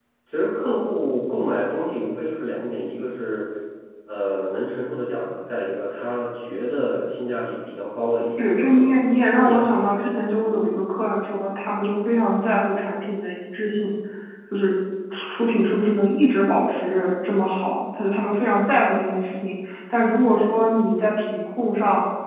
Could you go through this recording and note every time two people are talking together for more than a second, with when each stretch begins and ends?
8.4-9.6

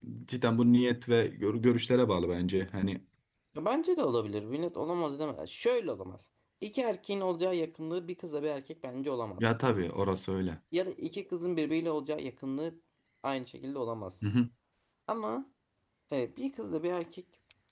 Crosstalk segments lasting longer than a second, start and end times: none

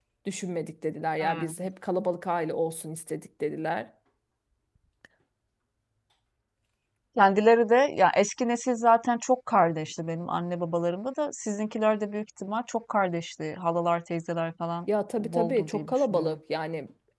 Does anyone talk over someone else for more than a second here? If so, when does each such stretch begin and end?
15.2-16.4

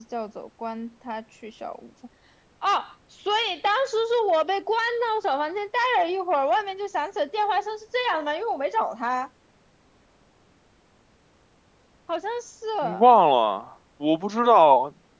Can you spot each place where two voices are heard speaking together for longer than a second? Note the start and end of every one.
none

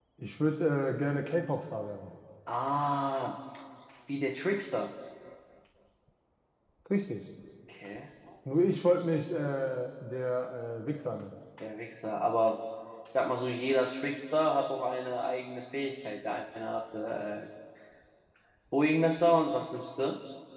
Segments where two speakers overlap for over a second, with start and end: none

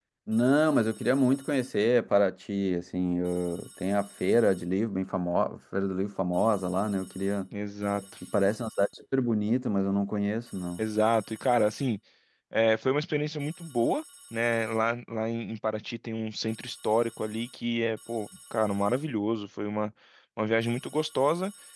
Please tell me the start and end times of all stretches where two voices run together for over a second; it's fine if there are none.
none

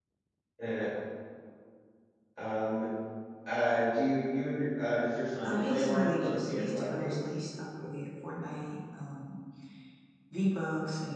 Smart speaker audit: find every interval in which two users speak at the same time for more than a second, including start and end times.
5.4-7.2

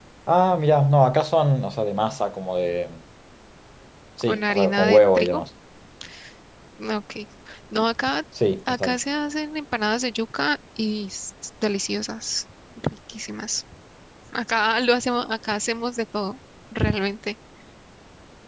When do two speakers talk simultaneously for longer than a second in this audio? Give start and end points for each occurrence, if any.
4.2-5.4

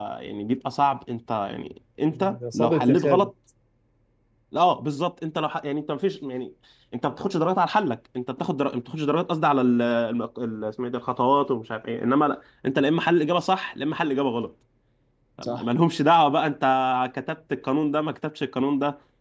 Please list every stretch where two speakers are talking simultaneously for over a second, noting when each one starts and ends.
2.0-3.3

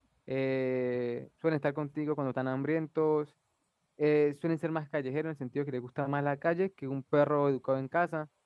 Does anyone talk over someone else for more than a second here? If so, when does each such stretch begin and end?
none

